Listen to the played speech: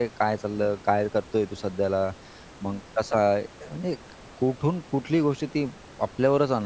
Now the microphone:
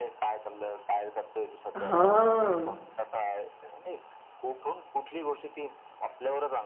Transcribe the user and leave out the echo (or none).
हां.